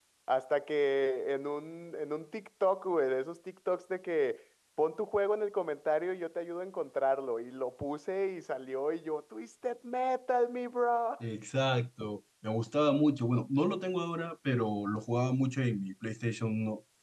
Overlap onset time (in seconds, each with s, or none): none